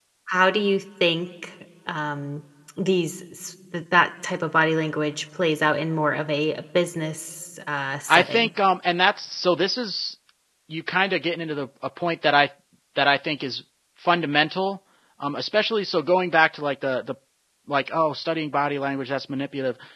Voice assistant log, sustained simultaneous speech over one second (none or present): none